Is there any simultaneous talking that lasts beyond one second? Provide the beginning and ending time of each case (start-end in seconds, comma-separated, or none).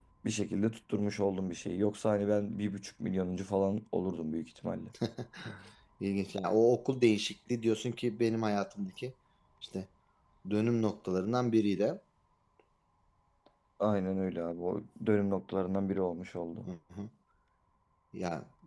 none